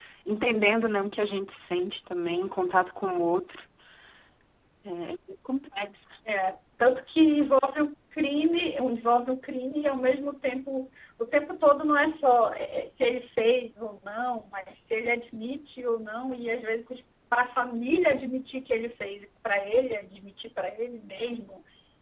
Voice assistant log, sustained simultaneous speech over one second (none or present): none